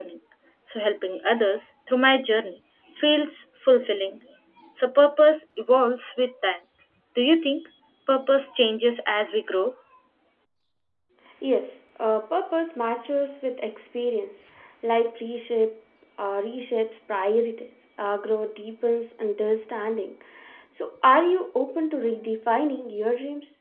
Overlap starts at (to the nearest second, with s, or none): none